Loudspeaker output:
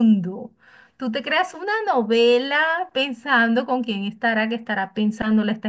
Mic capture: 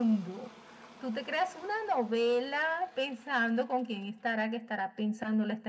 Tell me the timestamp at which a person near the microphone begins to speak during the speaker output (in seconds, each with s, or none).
none